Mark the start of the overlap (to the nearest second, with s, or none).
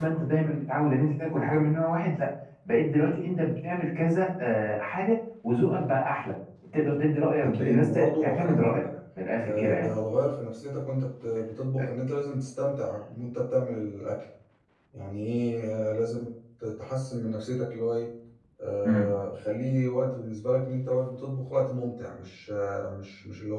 7 s